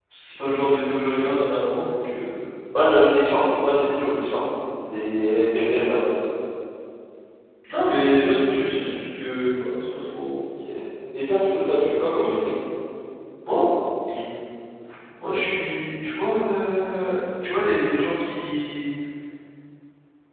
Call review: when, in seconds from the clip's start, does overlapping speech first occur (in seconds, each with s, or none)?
none